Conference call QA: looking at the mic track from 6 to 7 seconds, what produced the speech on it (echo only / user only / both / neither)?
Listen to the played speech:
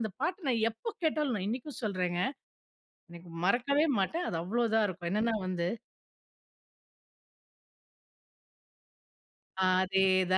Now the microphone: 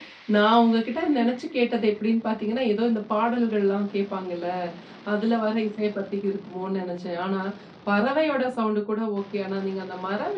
user only